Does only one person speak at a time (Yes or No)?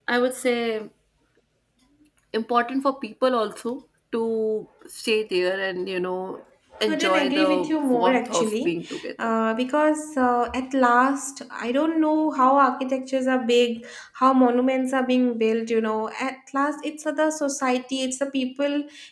No